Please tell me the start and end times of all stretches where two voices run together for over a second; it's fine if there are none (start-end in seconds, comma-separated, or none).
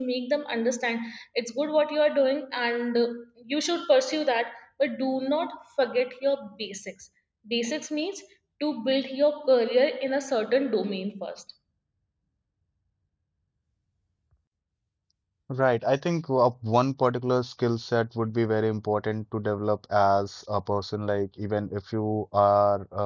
none